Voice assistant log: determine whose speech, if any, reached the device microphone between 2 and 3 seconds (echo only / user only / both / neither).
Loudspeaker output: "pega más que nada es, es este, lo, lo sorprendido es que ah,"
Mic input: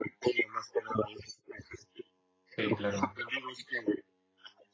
both